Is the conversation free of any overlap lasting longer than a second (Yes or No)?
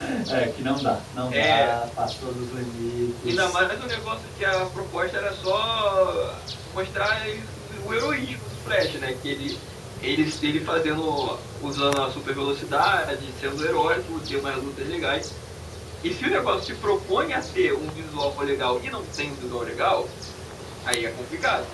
Yes